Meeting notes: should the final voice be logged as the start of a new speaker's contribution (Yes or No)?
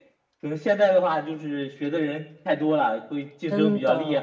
Yes